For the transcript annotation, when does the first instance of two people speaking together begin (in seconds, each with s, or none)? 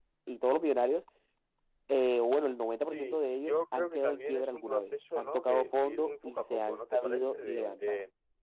2.9 s